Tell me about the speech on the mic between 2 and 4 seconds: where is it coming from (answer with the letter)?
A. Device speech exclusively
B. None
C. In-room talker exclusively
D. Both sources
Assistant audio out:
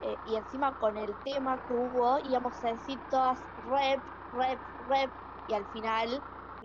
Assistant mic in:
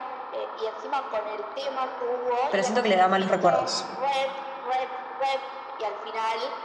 D